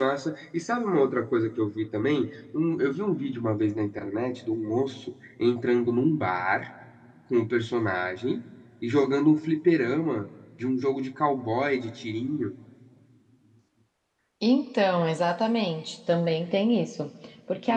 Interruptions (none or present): none